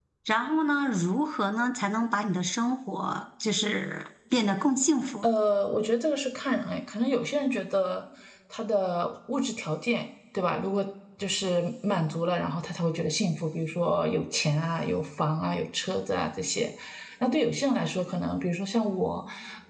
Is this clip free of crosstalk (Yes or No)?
Yes